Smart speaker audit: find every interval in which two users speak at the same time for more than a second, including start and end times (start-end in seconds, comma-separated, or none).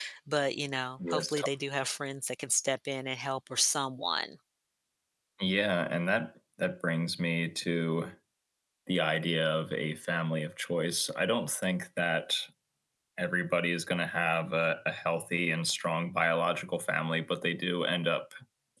none